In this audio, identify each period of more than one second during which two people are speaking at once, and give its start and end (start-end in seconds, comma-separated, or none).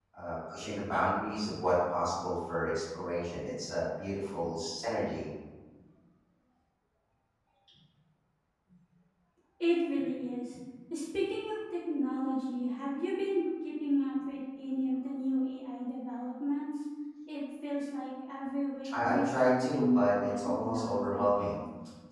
18.9-21.6